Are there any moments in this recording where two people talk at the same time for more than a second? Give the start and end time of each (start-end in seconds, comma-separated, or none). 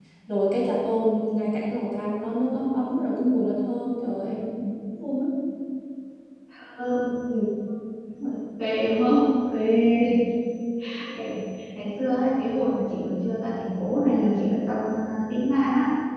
none